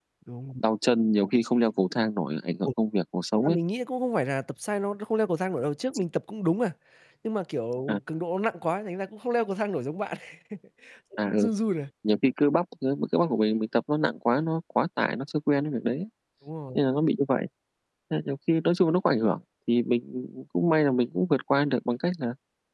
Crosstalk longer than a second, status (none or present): none